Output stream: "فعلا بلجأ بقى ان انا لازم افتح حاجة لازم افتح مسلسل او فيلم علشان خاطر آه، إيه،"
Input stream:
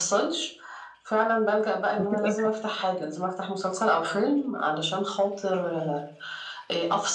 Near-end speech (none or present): present